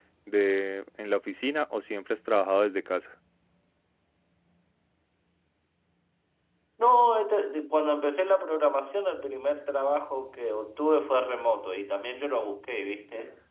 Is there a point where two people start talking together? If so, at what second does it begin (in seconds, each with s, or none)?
none